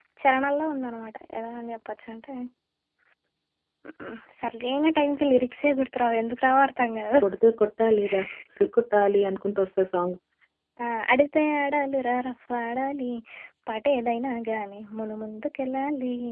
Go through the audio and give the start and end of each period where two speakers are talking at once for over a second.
none

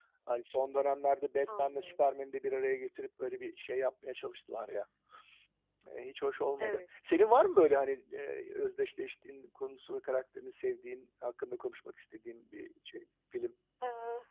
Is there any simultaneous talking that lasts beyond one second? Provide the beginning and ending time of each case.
none

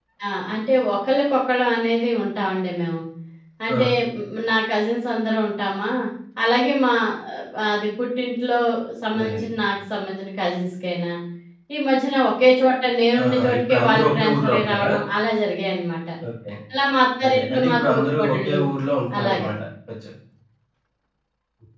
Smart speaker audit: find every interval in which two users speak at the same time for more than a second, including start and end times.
13.2-14.9, 17.2-18.6

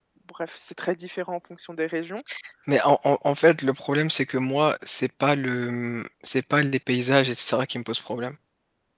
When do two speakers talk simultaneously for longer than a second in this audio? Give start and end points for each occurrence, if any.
none

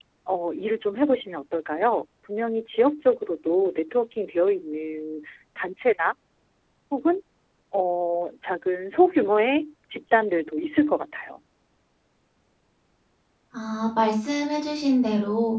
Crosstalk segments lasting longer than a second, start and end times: none

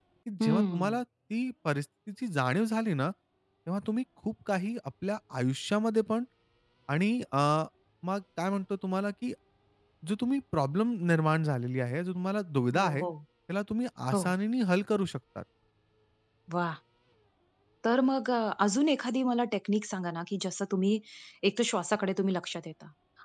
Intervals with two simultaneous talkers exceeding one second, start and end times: none

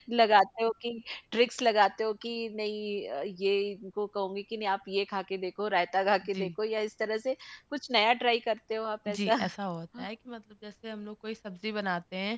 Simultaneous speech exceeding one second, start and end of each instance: none

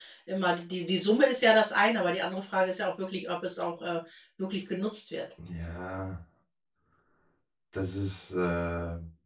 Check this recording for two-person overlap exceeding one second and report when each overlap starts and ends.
none

